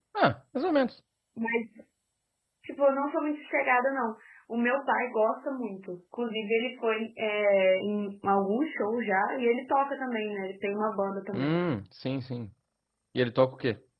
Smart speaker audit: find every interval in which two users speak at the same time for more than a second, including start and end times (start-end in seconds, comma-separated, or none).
none